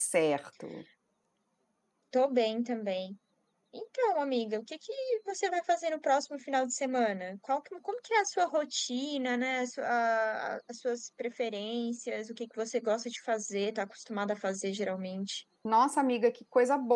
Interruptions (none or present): none